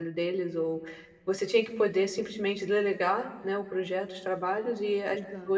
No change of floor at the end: Yes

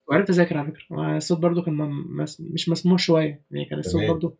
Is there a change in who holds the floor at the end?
No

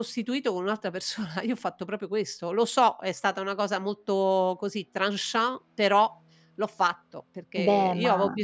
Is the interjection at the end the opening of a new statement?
No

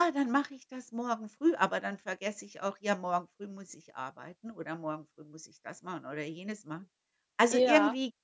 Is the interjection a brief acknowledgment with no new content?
Yes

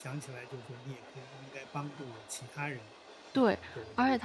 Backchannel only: No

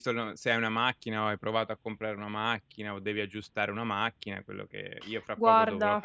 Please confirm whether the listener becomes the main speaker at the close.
No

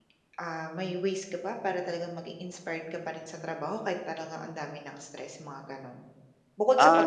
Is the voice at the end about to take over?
Yes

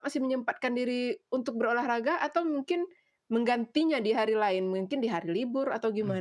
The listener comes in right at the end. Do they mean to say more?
Yes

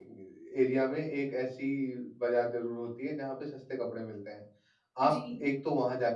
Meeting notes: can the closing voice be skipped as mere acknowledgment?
Yes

